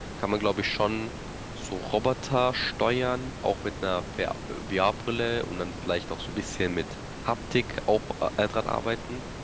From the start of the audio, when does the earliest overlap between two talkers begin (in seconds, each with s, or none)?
none